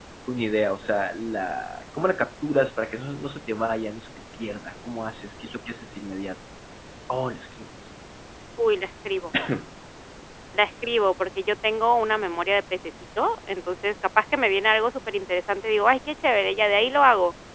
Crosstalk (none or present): none